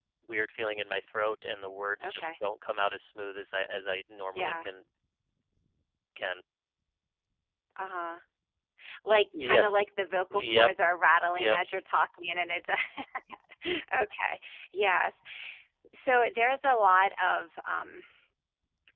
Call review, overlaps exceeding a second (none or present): none